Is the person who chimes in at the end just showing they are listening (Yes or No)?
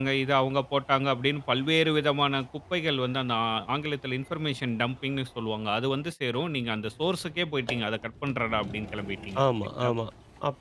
No